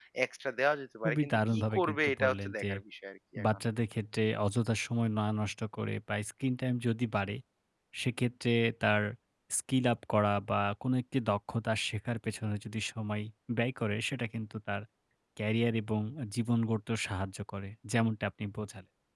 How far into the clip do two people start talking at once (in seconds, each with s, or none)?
1.0 s